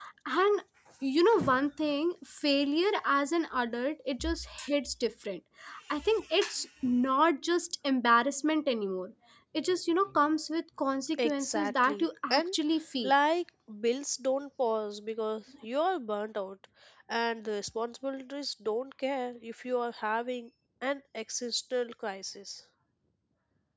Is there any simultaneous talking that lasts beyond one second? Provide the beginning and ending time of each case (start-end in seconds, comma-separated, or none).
11.2-12.6